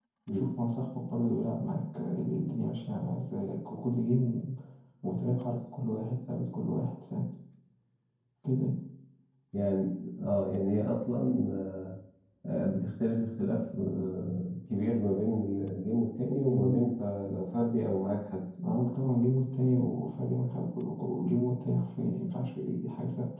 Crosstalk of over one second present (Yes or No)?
No